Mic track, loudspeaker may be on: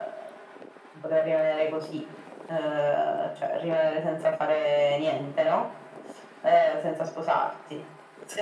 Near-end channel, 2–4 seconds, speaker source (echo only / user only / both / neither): echo only